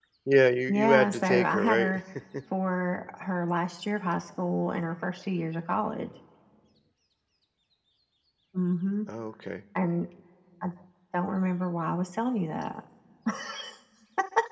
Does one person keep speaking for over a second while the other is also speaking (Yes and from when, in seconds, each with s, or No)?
Yes, from 0.7 s